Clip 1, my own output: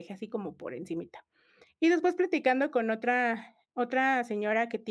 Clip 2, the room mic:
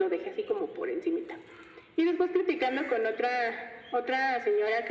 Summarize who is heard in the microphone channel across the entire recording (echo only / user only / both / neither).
echo only